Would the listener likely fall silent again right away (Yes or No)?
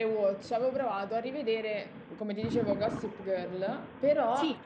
Yes